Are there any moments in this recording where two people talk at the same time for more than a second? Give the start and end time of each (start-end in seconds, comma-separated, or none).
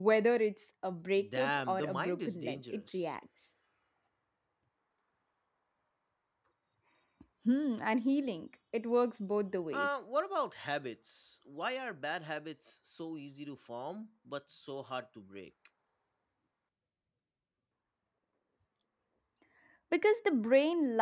1.2-3.1